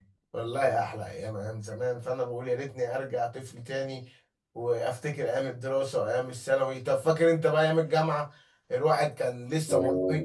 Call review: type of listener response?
listening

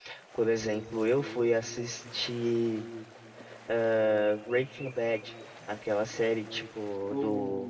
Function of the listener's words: listening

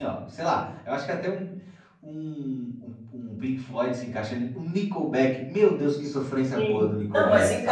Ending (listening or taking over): taking over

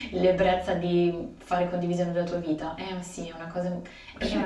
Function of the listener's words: taking over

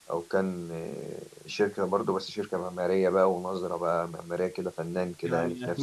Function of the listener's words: taking over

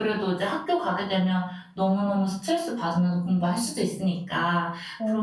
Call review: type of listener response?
listening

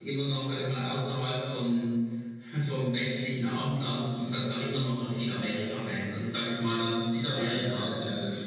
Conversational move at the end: taking over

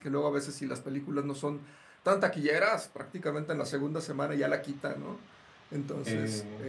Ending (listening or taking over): listening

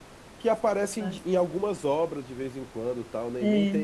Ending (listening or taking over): listening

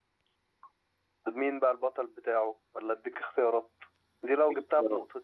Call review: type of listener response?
listening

